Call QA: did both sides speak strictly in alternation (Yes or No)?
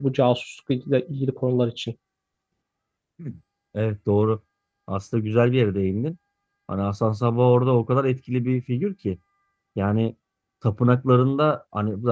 Yes